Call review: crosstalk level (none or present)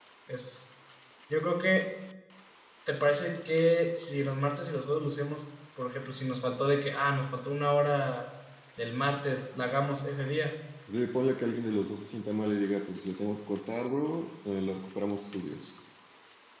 none